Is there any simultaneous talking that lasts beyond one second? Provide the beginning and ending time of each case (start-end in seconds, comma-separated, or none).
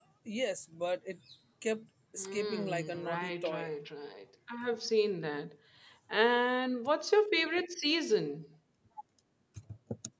2.2-3.7